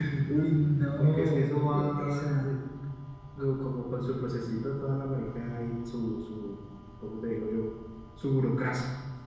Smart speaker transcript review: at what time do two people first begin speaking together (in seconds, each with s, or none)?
1.0 s